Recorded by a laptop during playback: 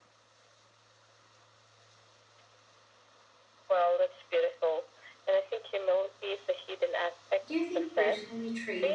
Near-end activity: present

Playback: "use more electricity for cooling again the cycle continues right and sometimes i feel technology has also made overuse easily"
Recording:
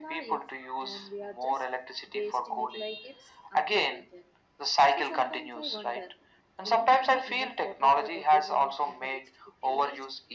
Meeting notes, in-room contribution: present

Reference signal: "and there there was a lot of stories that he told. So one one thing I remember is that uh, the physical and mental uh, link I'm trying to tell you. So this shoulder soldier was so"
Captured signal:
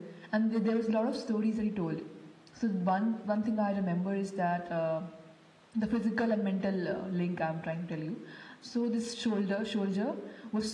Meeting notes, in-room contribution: none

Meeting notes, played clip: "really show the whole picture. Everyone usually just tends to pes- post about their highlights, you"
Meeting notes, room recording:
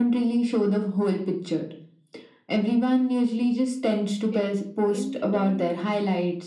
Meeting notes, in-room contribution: present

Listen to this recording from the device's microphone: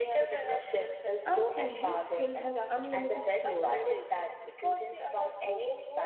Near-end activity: present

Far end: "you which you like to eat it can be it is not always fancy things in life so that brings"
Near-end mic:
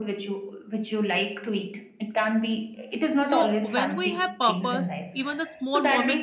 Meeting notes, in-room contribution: present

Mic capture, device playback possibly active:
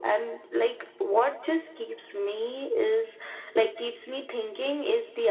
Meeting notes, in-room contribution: none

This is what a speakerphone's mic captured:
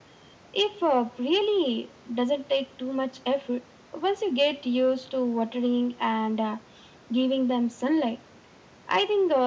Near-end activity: none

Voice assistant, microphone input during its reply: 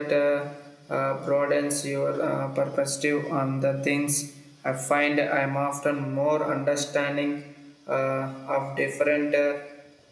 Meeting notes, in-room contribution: none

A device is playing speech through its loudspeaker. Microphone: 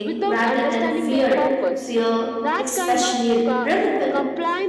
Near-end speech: present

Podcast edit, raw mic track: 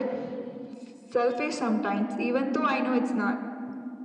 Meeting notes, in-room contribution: none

